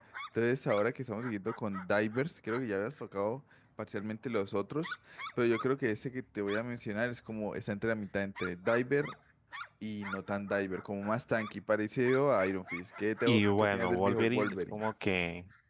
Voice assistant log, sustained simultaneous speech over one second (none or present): present